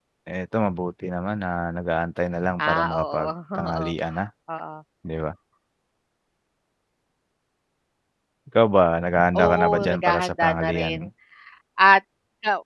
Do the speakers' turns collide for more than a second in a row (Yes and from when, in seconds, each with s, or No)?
Yes, from 2.6 s